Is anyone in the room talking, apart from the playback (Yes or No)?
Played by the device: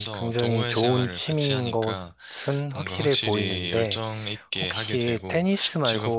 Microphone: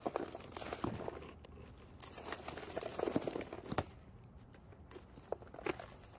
No